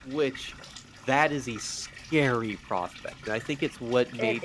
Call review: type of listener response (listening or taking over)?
listening